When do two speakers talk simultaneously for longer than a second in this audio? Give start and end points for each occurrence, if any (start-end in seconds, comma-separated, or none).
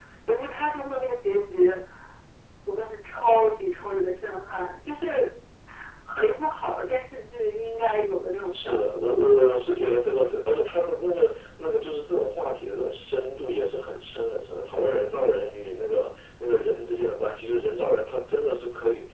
none